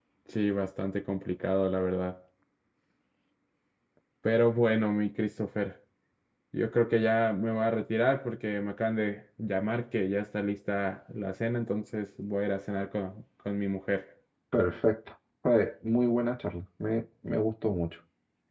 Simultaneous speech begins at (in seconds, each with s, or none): none